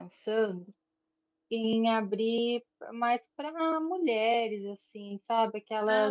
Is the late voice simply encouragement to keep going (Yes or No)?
Yes